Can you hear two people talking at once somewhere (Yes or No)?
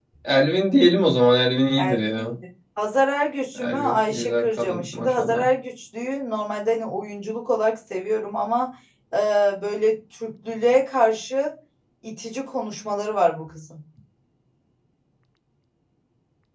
Yes